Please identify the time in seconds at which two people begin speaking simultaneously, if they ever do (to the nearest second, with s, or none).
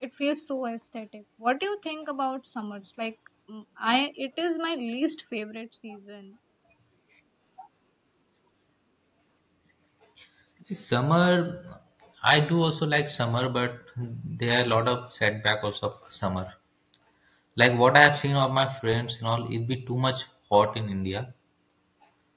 none